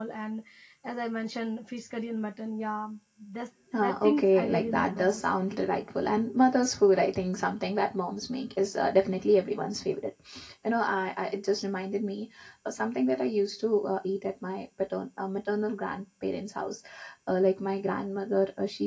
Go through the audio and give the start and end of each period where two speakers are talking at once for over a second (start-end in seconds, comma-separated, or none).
3.8-5.2